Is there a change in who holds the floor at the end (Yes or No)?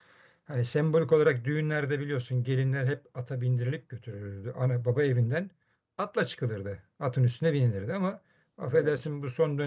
No